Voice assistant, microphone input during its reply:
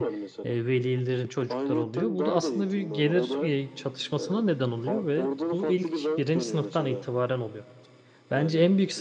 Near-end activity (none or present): present